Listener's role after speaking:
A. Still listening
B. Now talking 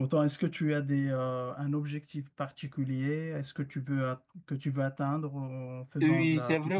B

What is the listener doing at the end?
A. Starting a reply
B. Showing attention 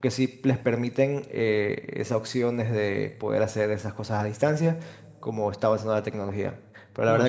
B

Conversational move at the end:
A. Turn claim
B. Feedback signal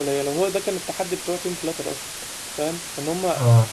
B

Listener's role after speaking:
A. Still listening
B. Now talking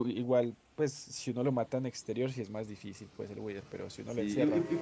B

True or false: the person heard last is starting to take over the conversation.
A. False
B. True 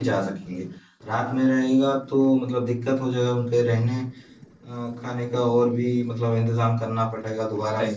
B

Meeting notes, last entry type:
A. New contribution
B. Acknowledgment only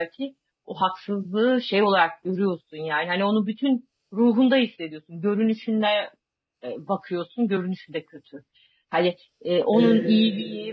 B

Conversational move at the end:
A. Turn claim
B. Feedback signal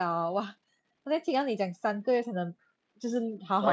B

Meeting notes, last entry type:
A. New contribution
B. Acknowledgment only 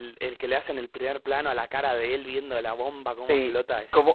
A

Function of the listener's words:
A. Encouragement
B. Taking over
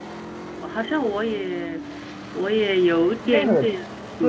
B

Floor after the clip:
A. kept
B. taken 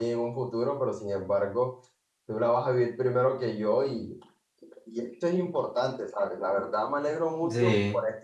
A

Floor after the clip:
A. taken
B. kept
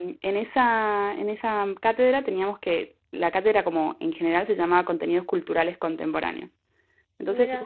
B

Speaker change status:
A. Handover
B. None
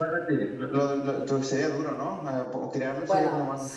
A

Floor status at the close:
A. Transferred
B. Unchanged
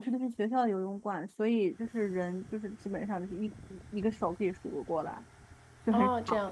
A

